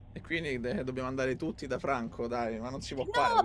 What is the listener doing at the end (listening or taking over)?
taking over